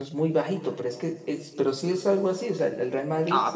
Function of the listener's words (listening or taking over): taking over